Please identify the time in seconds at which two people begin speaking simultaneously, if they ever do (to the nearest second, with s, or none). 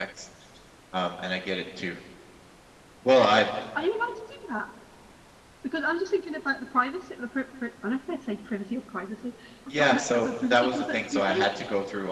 10 s